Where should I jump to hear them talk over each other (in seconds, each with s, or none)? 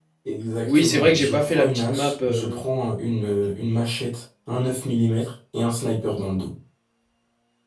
0.7 s